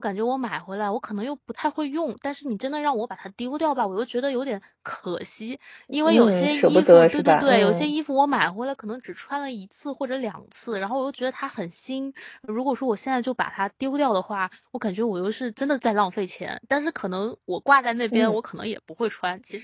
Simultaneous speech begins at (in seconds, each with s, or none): 6.0 s